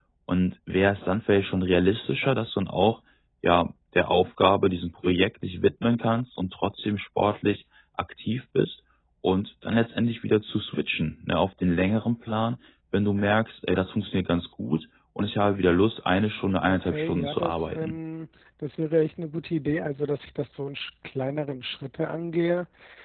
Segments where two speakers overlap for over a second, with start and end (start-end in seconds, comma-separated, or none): 16.6-18.0